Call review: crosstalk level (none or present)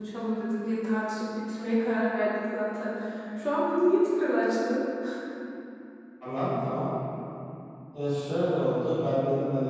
none